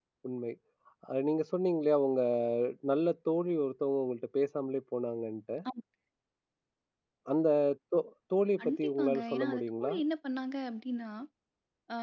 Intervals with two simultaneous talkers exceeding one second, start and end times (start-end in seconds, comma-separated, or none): 8.6-9.9